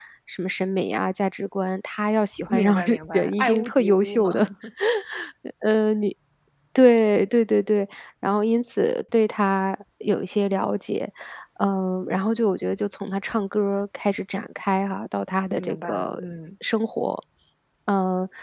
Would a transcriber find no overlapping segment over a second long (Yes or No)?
No